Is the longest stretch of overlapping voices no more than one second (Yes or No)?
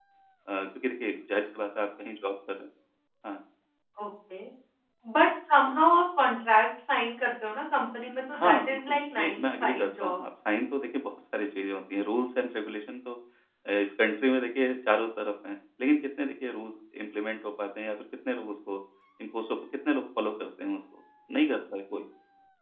No